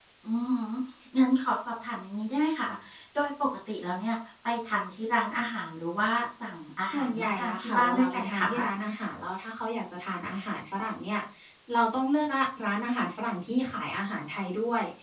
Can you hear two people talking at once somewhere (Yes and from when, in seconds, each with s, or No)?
Yes, from 6.9 s